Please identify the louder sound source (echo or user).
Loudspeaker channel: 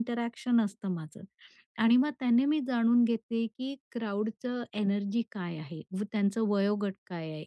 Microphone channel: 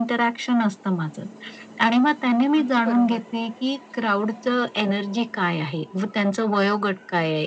echo